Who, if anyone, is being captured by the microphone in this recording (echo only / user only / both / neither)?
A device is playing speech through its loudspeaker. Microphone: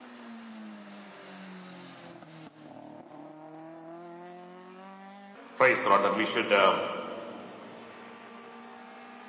user only